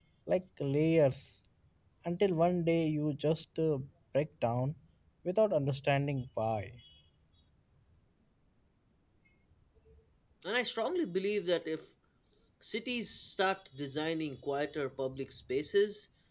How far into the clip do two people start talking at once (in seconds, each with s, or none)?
none